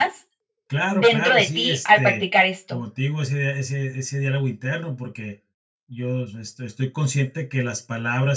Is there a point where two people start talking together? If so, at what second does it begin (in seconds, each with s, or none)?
0.9 s